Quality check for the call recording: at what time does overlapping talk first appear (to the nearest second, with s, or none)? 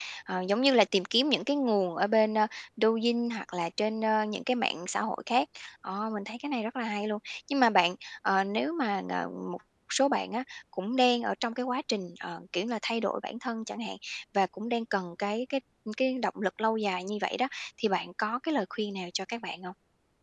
none